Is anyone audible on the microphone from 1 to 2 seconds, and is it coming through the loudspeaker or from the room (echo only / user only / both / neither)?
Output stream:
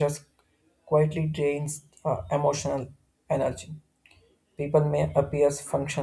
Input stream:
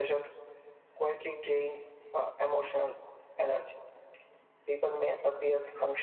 echo only